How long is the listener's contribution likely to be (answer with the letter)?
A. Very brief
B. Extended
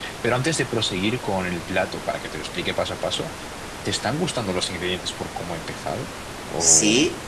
B